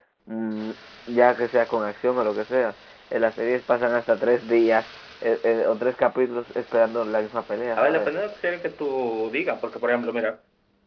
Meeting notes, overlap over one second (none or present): none